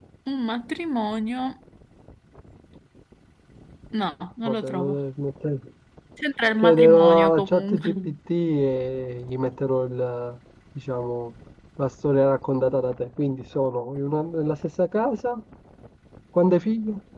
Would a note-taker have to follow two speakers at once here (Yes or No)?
Yes